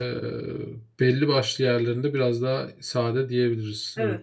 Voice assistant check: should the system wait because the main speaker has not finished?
No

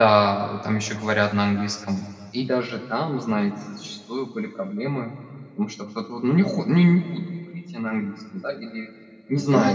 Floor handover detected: Yes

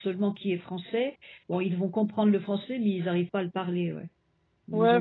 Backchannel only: No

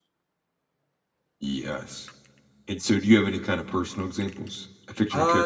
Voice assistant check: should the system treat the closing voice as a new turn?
Yes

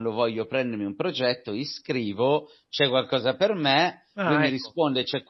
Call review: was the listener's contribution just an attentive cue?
Yes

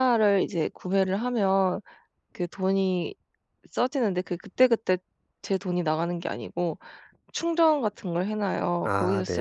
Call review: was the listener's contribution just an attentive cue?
Yes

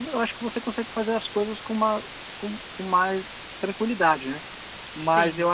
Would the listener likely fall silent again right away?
Yes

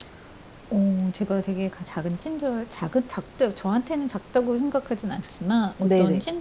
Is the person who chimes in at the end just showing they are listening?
Yes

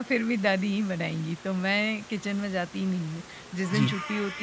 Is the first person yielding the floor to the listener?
No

